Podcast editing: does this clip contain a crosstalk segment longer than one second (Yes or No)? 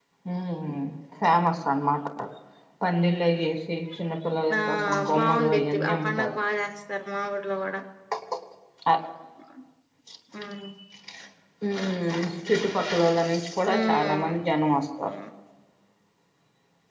Yes